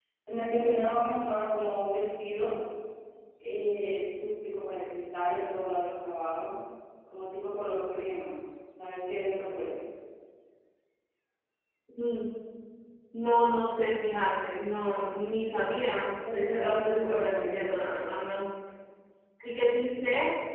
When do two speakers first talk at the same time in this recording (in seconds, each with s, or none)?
16.2 s